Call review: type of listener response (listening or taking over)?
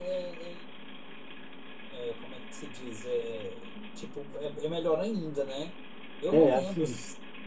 taking over